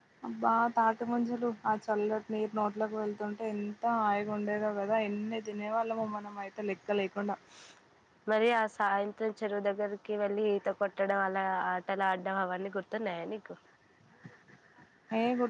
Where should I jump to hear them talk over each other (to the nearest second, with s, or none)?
none